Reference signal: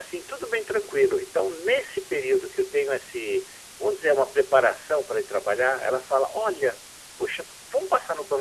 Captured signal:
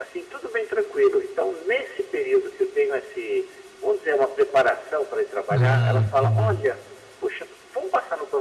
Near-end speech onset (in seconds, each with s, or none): 5.5 s